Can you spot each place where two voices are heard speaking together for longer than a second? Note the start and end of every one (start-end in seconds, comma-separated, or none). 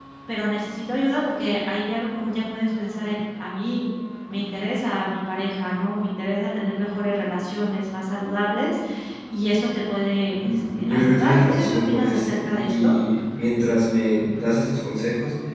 10.4-12.9